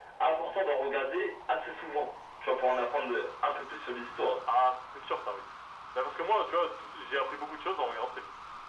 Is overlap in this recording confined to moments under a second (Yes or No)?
Yes